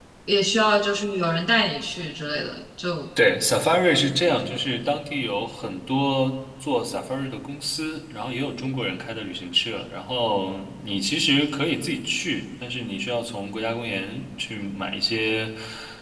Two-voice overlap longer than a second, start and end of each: none

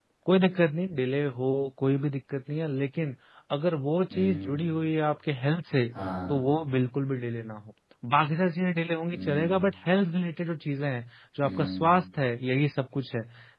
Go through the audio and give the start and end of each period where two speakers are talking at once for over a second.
none

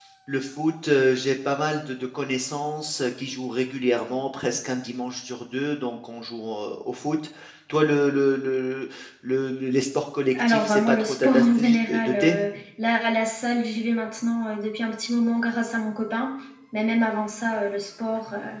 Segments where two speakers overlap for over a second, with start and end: 10.3-12.4

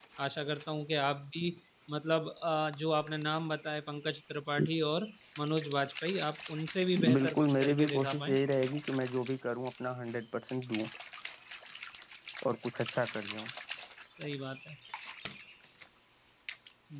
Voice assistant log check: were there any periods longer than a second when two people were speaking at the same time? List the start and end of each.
7.2-8.4

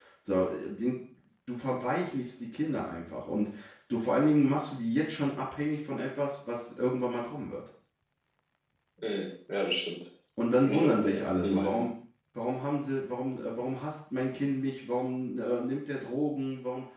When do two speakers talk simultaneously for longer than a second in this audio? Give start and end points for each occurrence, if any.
10.6-11.8

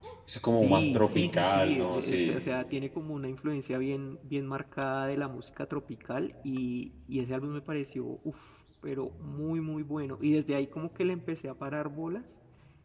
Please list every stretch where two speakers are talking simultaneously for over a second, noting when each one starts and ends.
0.6-2.4

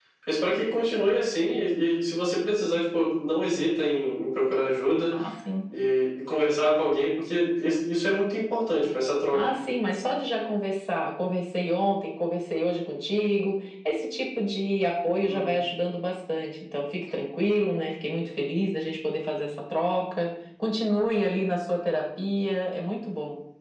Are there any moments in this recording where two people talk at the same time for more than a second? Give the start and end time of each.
none

